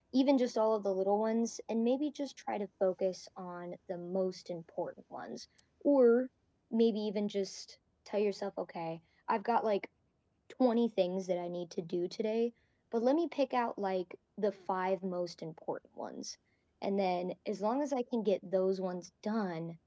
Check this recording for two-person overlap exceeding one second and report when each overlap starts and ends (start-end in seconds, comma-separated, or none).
none